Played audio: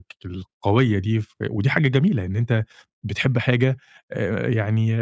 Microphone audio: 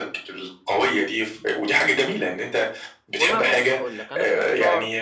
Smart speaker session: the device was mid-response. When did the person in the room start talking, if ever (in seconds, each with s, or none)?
3.2 s